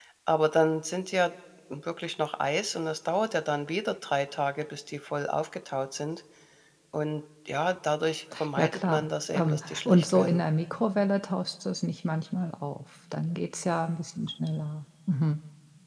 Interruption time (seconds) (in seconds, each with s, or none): 8.6 s